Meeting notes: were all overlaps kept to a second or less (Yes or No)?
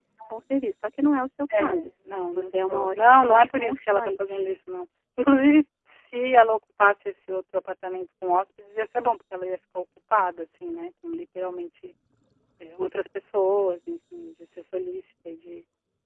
No